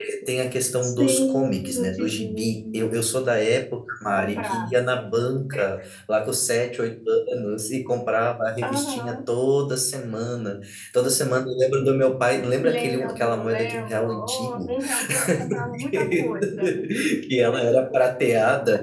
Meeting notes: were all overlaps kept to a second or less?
No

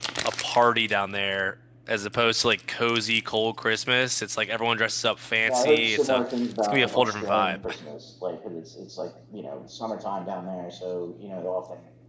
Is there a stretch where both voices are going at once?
Yes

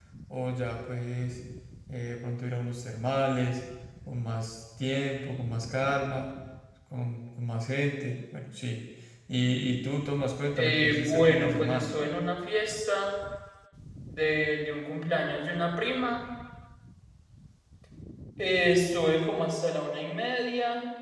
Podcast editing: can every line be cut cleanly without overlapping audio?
No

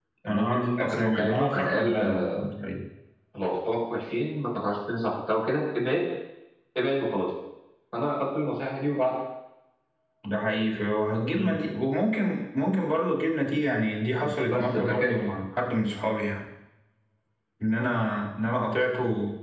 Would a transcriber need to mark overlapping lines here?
Yes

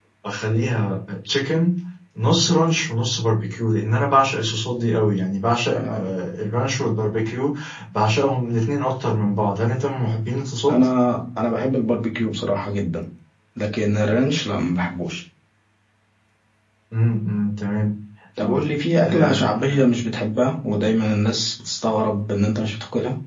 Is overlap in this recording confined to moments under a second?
No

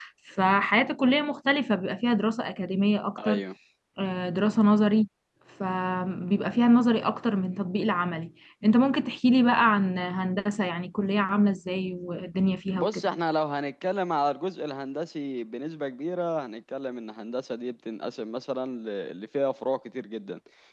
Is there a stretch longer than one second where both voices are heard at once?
No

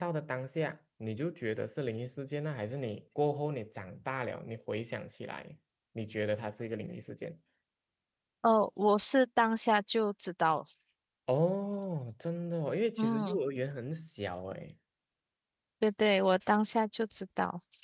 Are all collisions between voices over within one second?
Yes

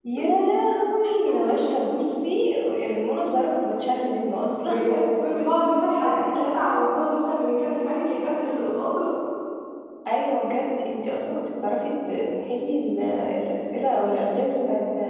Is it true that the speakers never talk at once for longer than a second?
Yes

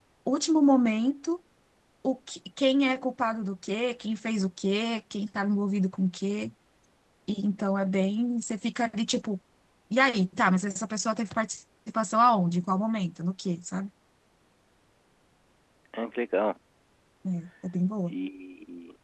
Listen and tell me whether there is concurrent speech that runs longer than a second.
No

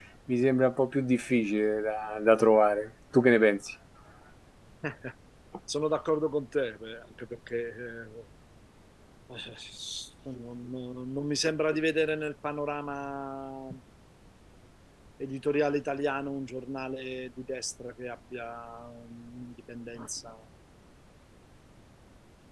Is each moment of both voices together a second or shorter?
Yes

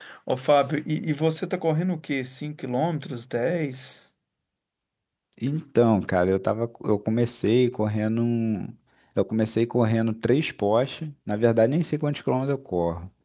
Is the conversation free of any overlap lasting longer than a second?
Yes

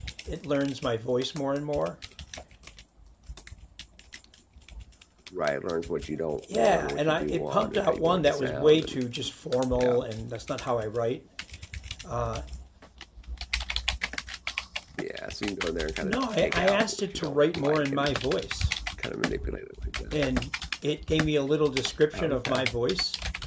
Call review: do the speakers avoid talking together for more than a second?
No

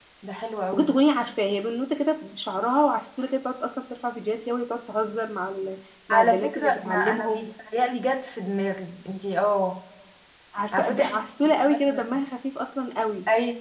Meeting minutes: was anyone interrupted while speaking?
Yes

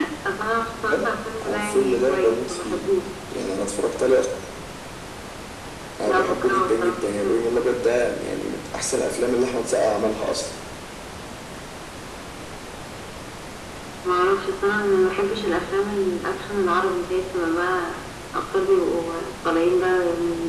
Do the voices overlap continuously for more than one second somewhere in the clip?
Yes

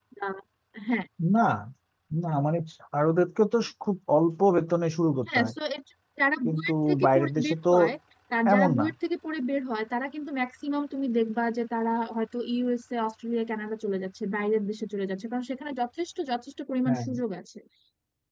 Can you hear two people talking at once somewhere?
Yes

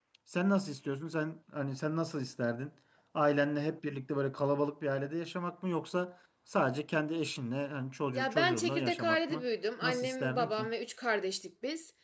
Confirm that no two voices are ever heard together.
No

